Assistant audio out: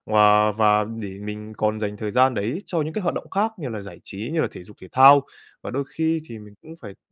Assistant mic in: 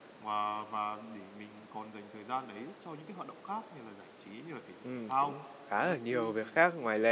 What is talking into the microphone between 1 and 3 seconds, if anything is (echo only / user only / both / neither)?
echo only